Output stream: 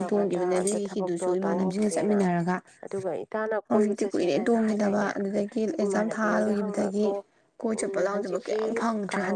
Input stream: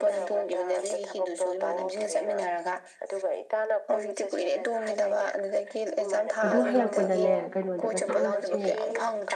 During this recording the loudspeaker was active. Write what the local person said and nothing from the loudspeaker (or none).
ꯑꯗꯨ ꯍꯜꯂꯛꯄꯗꯅꯦ ꯀꯩꯅꯣꯗꯒ ꯆꯪꯉꯛꯁꯤ